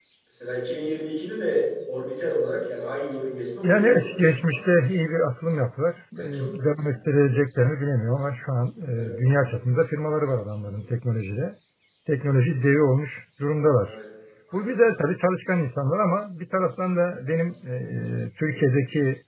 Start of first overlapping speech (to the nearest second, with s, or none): 4 s